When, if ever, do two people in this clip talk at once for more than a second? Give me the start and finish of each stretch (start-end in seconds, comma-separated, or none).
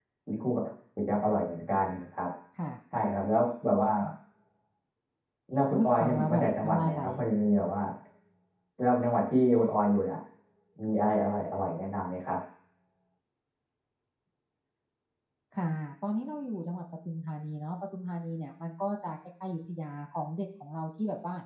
5.7-7.0